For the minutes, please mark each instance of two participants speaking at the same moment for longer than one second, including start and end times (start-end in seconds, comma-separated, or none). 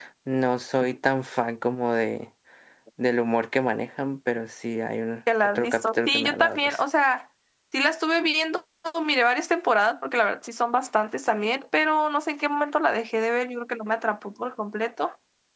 5.4-6.8